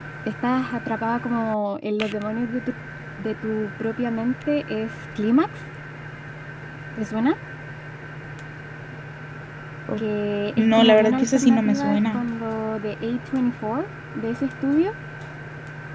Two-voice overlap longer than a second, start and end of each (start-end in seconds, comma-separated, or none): 10.6-12.2